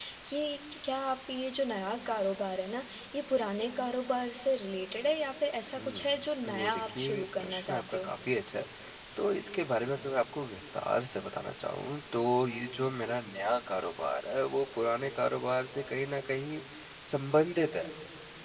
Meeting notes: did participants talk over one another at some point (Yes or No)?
Yes